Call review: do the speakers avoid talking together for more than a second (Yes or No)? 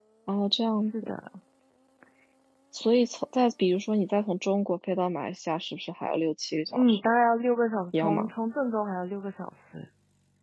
Yes